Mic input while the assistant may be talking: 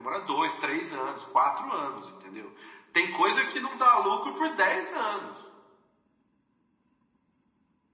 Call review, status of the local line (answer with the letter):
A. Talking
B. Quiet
B